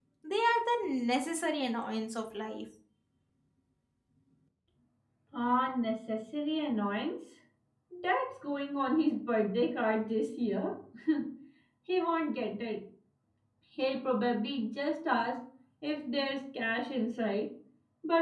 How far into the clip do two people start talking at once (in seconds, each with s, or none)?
none